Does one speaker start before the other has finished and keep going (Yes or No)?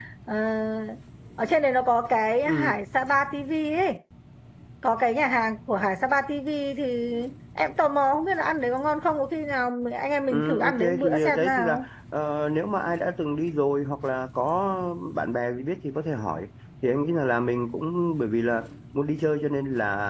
Yes